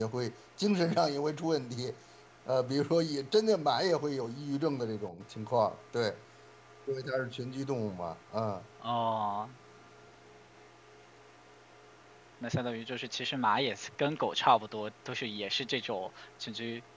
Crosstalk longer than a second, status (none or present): none